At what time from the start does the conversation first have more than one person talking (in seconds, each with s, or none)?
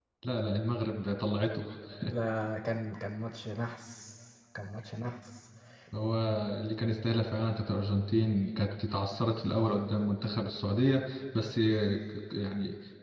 none